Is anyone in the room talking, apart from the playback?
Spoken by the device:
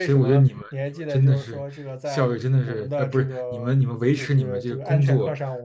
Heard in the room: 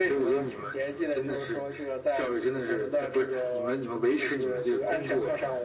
No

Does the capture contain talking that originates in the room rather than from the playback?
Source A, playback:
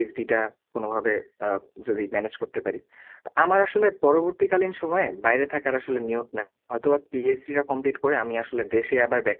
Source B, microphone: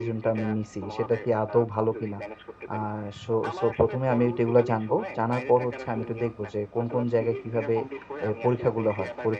Yes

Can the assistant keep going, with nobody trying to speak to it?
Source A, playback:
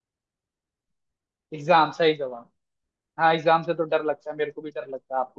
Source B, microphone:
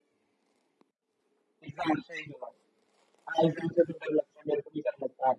Yes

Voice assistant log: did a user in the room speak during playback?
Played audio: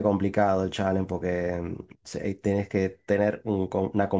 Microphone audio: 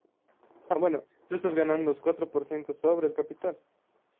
Yes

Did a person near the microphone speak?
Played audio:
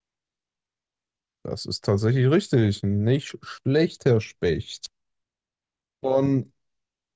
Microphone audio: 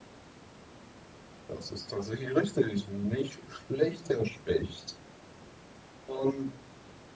No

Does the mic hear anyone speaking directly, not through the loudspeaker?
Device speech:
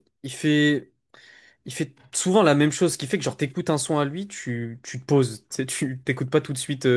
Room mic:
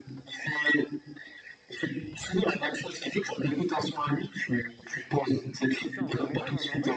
Yes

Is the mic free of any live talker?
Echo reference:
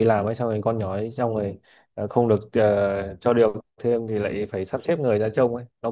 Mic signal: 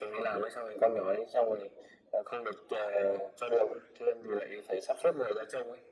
Yes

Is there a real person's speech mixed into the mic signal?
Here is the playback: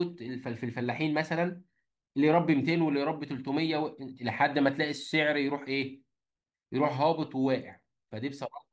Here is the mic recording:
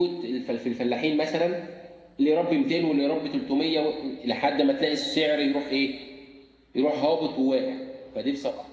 No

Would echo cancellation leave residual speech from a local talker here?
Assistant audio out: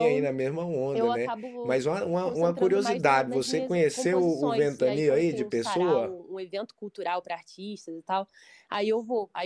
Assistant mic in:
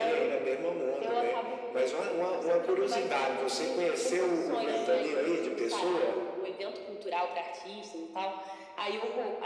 Yes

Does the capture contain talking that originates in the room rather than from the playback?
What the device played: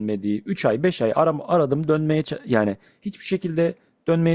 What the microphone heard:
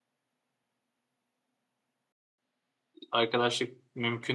Yes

